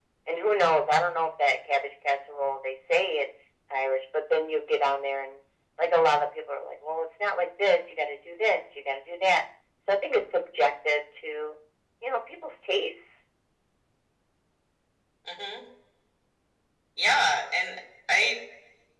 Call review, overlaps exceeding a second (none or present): none